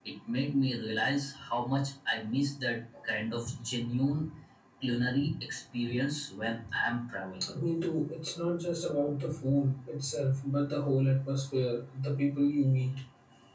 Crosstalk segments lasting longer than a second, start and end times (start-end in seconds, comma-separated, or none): none